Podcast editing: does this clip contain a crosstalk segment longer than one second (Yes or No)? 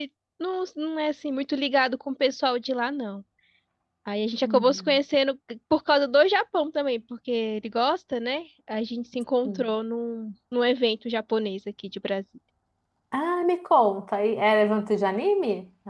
No